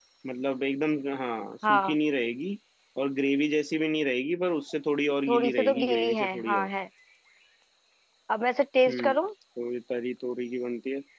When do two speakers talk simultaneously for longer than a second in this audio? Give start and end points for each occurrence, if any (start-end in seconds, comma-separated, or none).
5.3-6.7